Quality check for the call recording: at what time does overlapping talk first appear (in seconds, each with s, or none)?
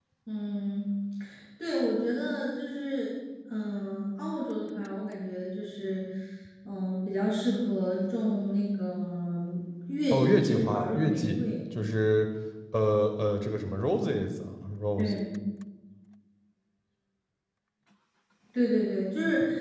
10.1 s